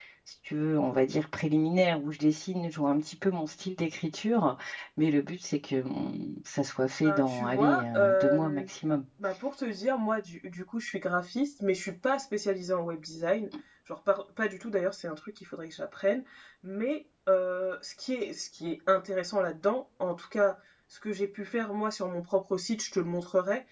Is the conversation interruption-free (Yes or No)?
No